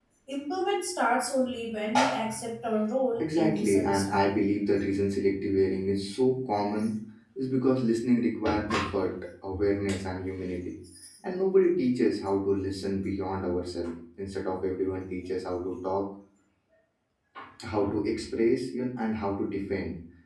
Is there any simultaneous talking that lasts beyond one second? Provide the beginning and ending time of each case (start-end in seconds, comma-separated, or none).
3.2-4.4